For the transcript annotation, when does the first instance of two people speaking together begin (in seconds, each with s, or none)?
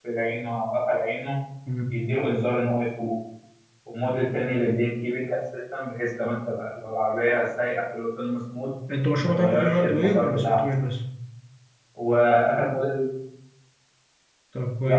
9.2 s